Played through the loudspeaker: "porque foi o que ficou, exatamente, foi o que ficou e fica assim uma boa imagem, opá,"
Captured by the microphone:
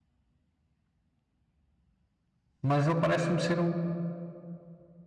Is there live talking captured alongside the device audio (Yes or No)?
Yes